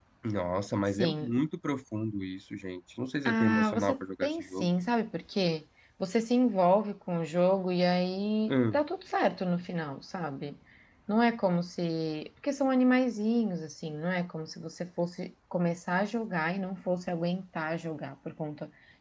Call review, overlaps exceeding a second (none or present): present